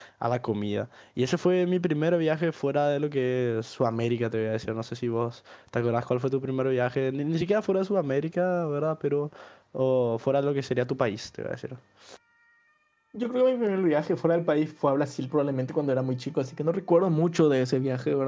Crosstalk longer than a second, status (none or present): none